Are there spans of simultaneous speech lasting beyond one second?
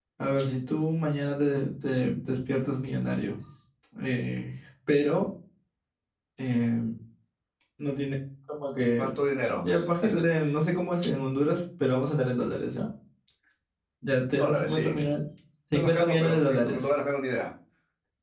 Yes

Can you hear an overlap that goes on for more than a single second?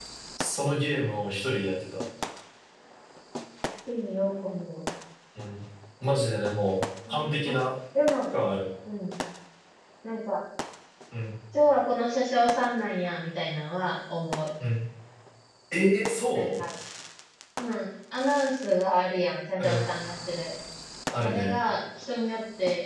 No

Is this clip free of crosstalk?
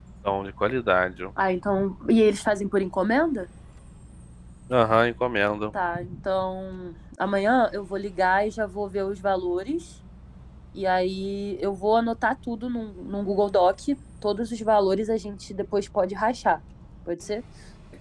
Yes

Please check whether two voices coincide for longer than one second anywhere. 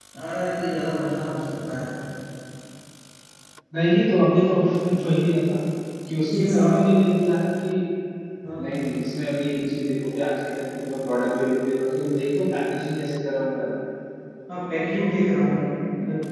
No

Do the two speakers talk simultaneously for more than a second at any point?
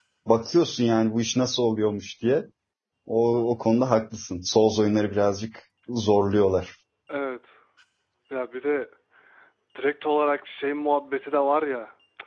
No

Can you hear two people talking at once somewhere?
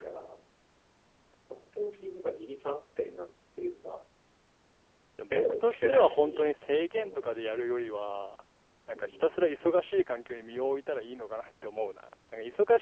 Yes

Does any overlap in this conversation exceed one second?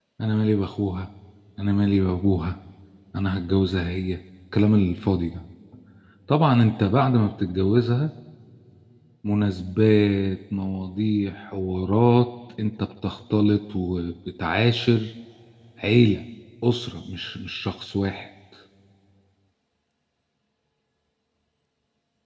No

